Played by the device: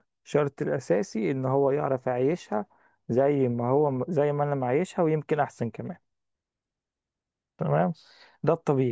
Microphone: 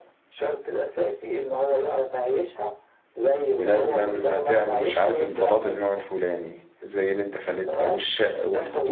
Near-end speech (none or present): present